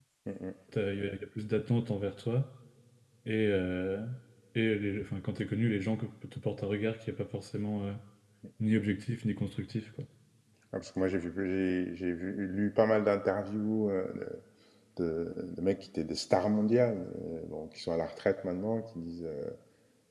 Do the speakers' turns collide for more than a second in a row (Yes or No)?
No